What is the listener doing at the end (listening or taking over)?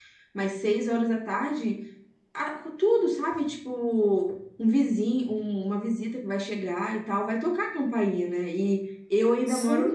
listening